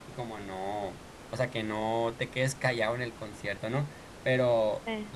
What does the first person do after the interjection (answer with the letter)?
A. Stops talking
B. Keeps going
B